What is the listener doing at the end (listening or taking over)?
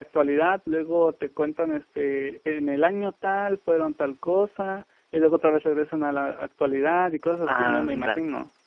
taking over